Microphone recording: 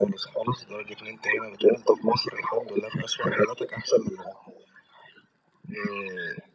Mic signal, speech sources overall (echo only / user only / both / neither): echo only